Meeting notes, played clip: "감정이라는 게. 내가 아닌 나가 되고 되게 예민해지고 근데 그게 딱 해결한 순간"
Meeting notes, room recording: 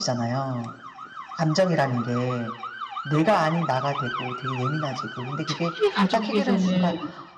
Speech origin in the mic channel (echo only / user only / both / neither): both